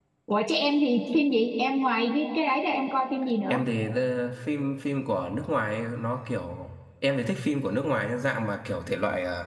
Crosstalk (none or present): none